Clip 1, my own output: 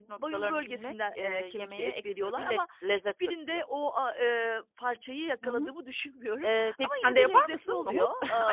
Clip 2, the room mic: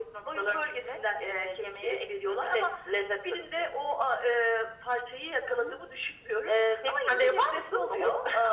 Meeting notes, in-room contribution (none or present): none